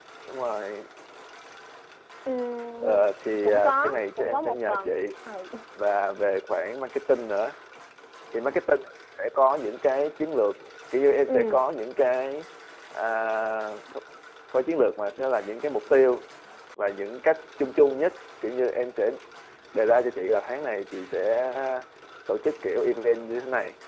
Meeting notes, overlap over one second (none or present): present